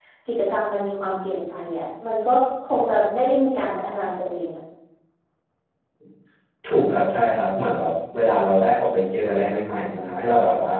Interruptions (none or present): none